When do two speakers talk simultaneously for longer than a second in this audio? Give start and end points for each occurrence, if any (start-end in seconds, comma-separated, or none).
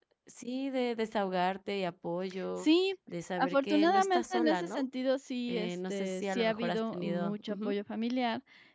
3.4-4.8, 5.5-7.8